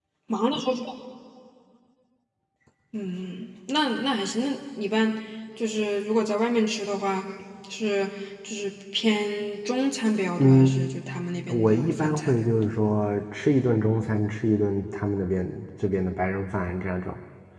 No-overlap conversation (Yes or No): No